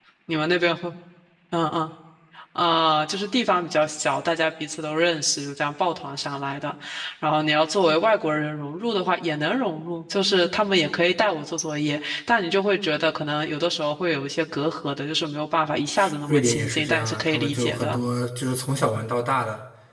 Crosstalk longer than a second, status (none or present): present